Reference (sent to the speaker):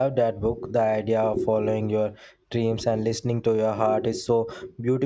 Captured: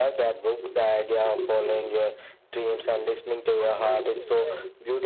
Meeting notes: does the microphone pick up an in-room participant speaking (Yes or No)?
Yes